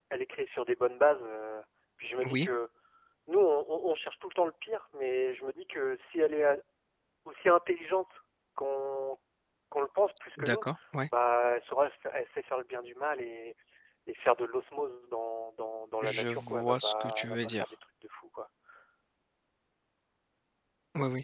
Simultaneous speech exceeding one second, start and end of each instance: 16.0-17.7

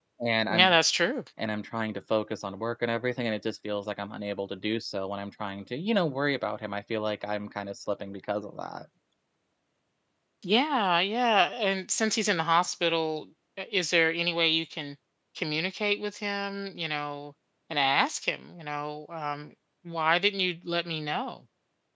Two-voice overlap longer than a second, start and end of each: none

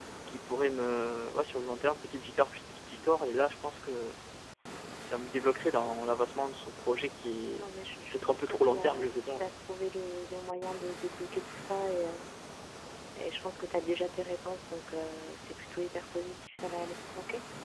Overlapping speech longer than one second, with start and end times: 8.1-9.5

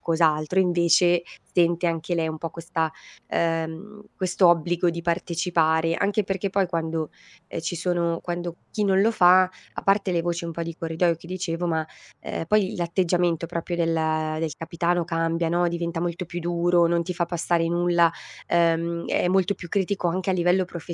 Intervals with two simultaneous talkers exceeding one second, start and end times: none

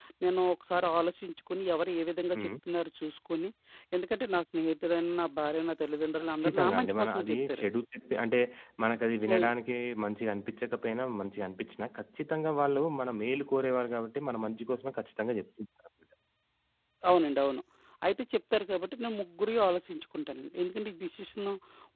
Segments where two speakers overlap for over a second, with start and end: 6.4-7.7

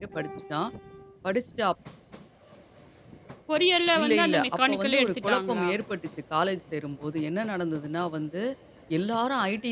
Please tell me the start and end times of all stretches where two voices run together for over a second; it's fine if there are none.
4.0-5.7

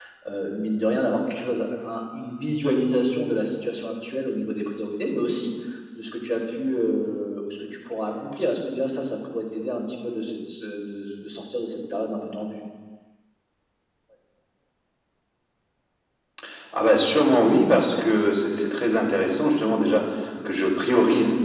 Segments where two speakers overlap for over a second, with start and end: none

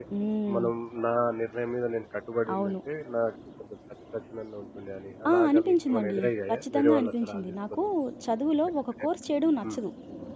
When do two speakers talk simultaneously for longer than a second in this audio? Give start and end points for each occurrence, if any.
5.3-7.8

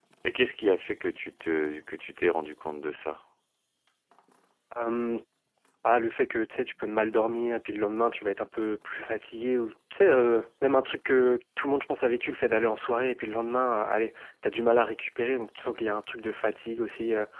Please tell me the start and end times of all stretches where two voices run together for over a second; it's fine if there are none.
none

